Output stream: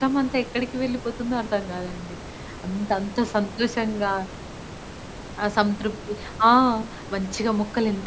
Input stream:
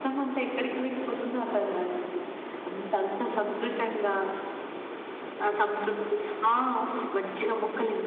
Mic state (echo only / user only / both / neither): echo only